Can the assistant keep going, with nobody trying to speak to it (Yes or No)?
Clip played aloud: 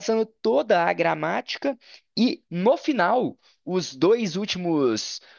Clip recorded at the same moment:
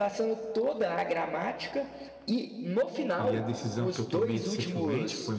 No